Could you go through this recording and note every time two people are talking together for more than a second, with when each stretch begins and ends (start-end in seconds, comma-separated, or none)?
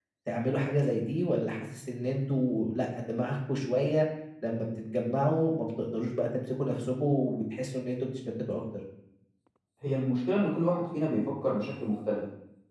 none